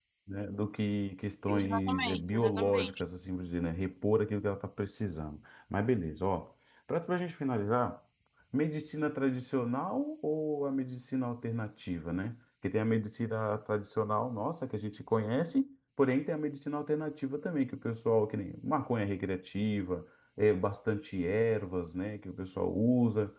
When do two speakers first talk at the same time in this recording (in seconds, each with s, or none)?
1.5 s